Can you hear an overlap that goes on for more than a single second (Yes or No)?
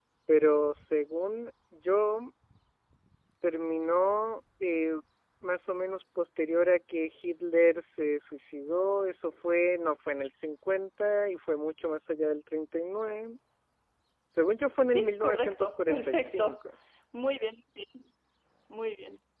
Yes